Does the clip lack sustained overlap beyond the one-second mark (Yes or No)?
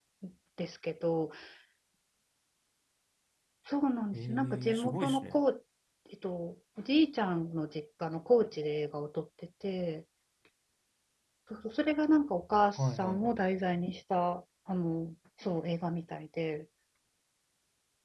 No